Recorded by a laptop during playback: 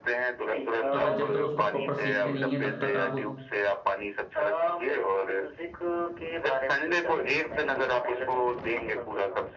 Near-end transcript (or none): अगर जब तक उसको प्रॉपर सीखते नहीं है तब तक आप